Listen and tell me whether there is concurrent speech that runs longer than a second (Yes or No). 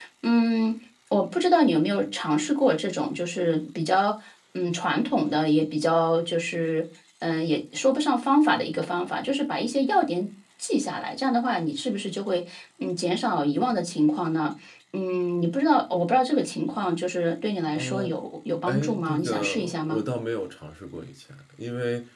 Yes